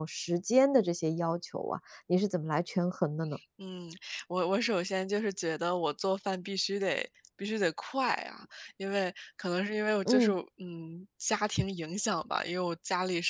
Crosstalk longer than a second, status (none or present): none